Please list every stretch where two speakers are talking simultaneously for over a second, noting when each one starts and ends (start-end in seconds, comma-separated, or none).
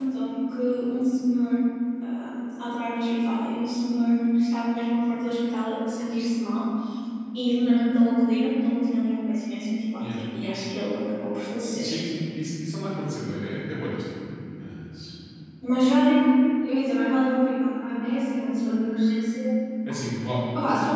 none